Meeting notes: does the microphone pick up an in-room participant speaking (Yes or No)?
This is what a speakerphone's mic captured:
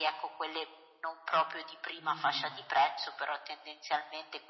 Yes